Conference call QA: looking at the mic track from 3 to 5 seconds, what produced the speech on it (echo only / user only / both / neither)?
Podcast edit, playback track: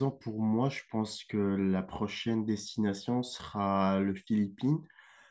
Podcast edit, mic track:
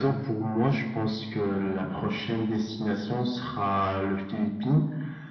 echo only